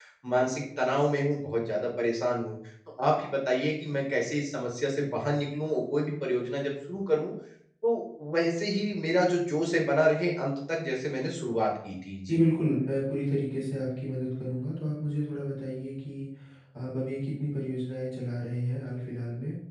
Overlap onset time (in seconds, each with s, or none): none